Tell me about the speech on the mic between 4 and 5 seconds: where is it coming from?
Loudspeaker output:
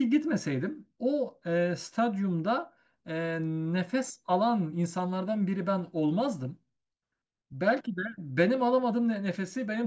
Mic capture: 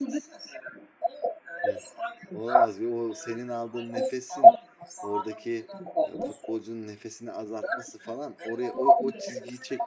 both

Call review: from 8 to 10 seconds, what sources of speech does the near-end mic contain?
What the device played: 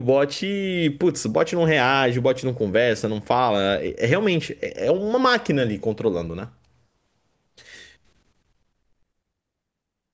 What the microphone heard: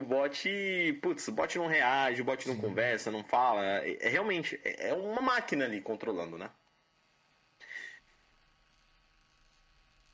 neither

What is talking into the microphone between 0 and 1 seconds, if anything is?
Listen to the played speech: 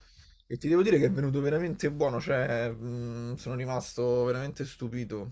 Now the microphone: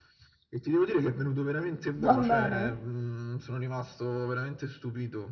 echo only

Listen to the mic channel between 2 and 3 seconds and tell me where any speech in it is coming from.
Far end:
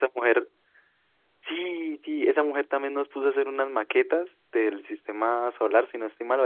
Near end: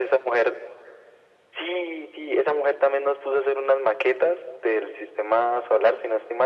echo only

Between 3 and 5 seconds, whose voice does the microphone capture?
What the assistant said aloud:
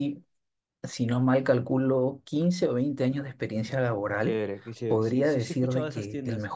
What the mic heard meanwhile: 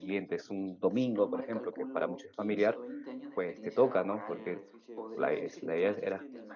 both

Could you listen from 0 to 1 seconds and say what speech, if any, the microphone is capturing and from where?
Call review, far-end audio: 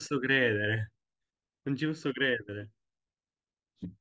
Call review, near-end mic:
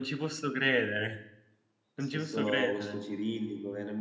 echo only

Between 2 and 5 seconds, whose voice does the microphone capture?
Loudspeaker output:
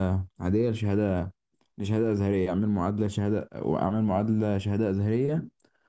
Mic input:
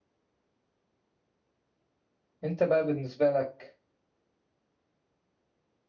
user only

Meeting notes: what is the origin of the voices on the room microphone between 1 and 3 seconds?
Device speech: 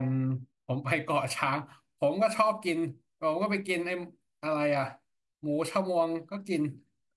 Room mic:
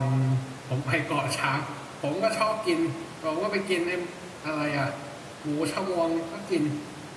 echo only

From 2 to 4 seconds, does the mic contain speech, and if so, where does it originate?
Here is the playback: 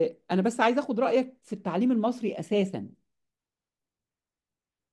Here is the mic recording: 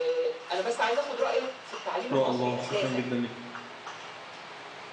both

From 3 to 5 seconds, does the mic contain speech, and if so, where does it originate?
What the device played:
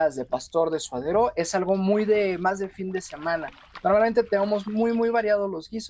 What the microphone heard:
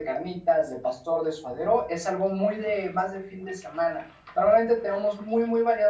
echo only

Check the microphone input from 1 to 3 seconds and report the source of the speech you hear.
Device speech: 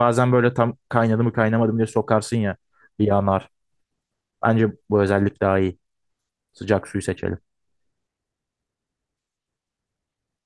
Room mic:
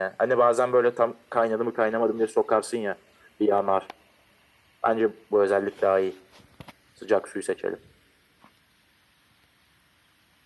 echo only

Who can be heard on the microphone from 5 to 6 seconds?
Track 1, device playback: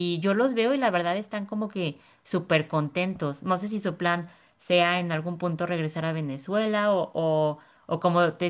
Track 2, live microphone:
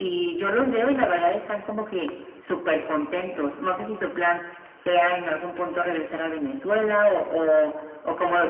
echo only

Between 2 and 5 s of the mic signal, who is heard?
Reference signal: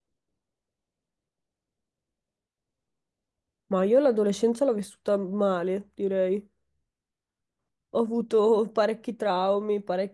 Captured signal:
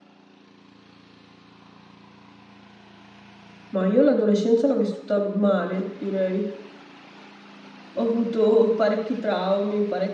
echo only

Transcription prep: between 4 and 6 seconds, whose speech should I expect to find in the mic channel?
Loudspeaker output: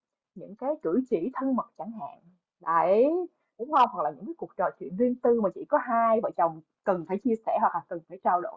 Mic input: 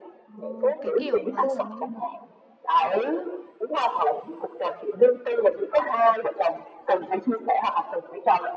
echo only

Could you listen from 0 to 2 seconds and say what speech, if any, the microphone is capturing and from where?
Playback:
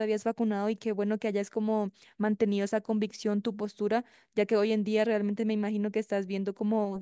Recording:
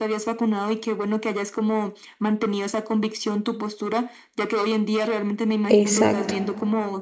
echo only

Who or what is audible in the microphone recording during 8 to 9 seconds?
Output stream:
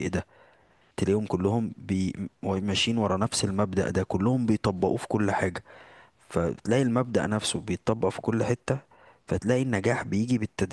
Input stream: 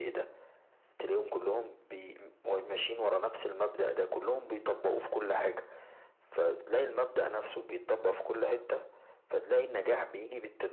echo only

